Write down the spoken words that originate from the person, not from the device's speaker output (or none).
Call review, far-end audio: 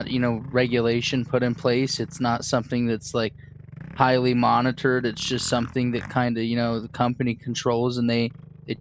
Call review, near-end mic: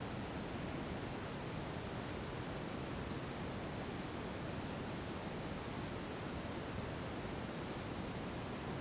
none